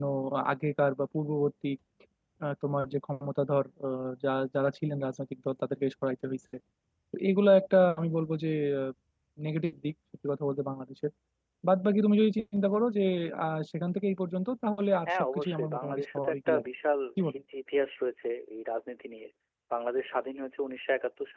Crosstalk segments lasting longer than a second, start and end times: 15.1-16.7

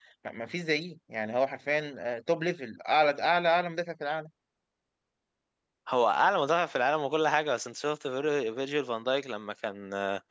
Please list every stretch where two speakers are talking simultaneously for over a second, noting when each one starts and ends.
none

